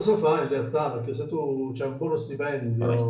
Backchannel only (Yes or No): Yes